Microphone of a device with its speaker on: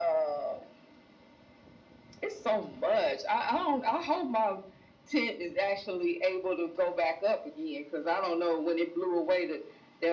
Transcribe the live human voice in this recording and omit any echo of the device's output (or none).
none